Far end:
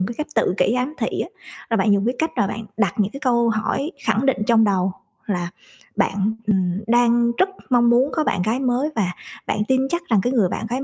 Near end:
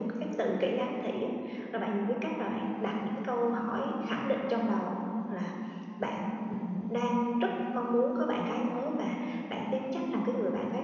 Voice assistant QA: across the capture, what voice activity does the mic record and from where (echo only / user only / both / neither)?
echo only